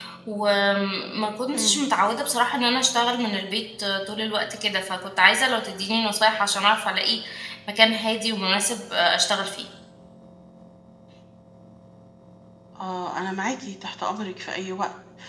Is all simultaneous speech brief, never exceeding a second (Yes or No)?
Yes